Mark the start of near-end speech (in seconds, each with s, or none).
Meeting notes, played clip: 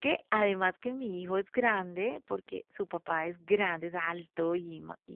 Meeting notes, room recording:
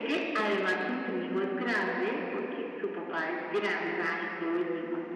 none